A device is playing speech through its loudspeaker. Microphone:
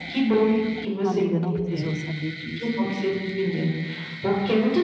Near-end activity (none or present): present